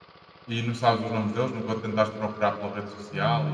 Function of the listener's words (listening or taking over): taking over